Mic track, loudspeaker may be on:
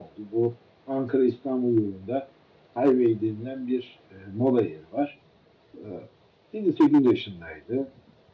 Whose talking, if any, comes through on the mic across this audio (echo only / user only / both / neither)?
user only